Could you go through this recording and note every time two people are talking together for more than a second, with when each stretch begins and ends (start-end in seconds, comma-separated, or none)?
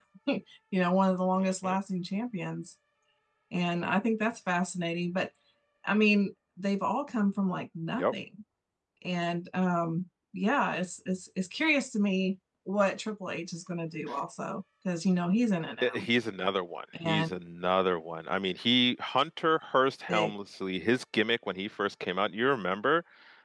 none